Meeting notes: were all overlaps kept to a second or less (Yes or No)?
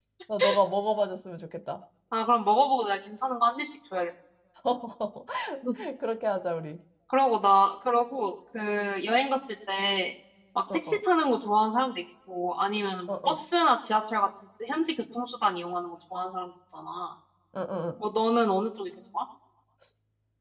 Yes